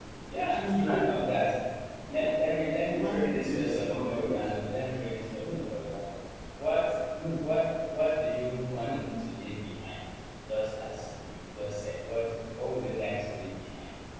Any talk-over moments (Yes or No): Yes